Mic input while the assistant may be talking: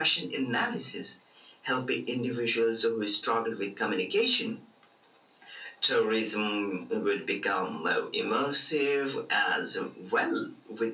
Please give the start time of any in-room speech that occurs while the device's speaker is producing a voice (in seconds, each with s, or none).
none